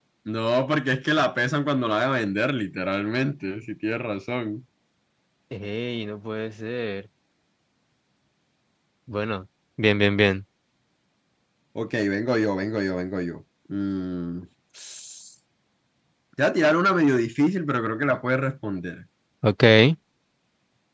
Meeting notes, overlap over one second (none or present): none